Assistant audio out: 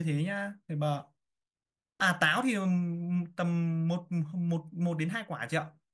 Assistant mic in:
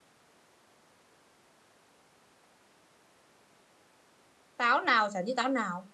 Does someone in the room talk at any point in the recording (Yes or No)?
Yes